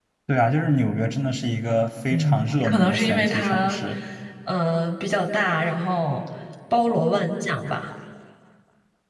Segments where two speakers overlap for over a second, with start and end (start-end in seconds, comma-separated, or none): 2.1-3.8